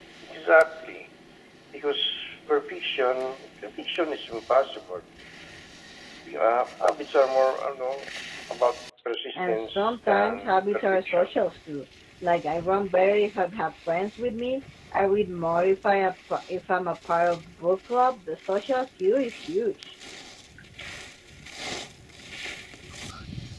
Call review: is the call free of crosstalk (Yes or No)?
No